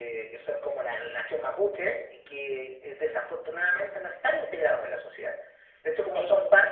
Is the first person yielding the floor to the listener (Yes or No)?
No